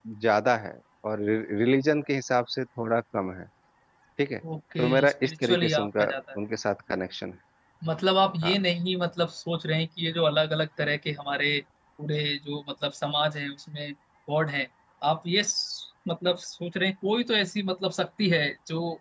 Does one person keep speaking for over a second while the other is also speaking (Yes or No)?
Yes